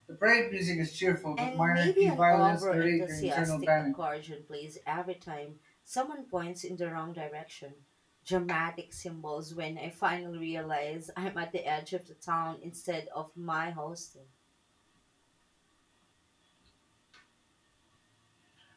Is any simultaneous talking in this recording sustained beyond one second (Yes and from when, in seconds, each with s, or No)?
Yes, from 1.4 s